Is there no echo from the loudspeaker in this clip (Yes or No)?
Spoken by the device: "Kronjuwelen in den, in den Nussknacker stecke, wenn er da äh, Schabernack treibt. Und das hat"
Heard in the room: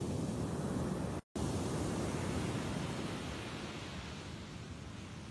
Yes